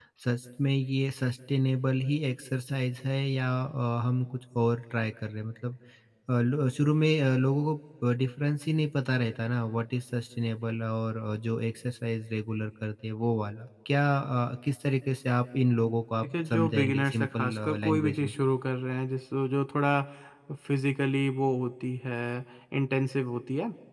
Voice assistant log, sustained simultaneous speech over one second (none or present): present